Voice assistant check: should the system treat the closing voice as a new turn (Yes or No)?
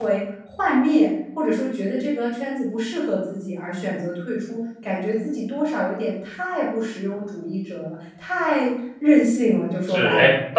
Yes